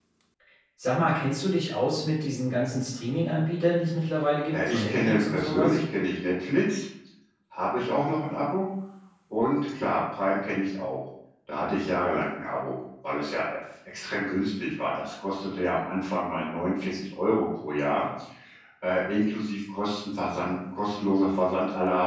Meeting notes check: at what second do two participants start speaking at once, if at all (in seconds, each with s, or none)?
4.5 s